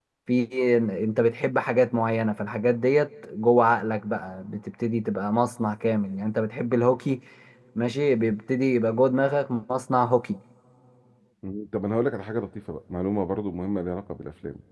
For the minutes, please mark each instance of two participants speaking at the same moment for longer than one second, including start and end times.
none

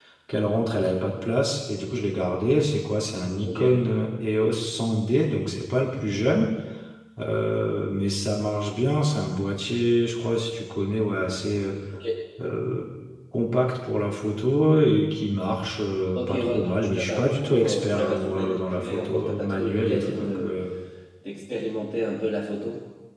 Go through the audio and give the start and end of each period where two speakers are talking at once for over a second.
16.1-20.5

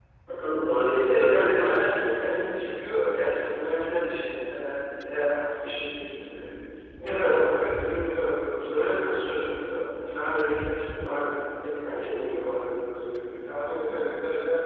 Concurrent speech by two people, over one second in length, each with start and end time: 0.9-2.7

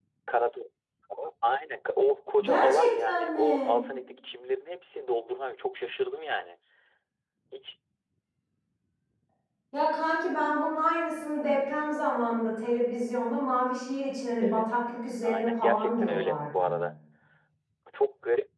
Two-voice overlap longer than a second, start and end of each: 2.4-3.8, 15.2-16.7

